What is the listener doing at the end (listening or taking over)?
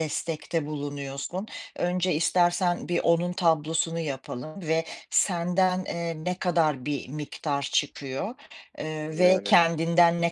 listening